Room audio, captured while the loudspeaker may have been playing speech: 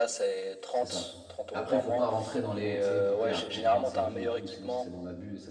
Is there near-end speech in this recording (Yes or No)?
Yes